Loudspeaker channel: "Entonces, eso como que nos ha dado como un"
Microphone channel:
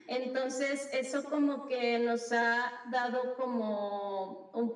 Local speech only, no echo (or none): none